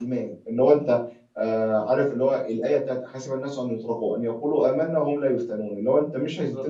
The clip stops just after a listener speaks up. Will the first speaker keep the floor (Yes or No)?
Yes